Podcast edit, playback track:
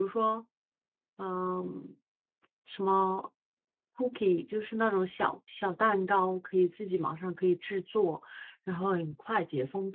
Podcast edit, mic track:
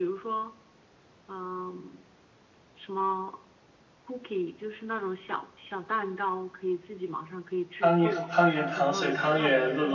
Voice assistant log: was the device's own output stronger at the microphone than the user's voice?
No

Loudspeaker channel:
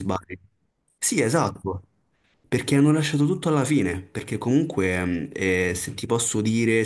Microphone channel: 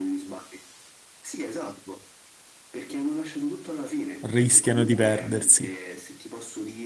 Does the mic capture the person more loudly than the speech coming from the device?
Yes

